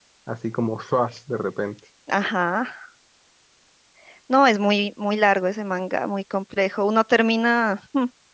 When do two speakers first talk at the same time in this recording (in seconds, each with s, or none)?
none